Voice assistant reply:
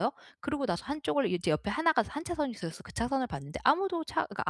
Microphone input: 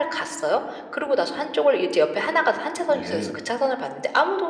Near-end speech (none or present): present